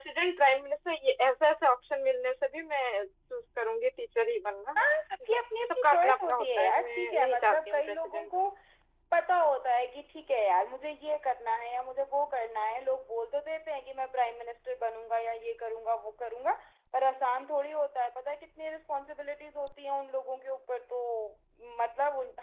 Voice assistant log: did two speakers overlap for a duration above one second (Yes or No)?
Yes